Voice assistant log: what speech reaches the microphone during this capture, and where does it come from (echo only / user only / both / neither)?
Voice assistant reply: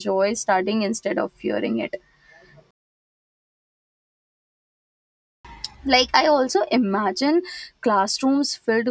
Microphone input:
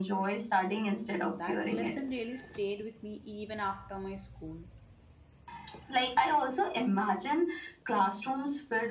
both